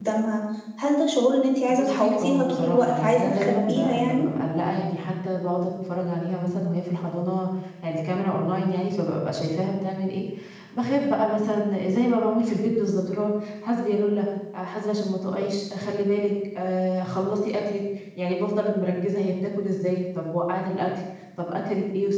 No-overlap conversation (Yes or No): No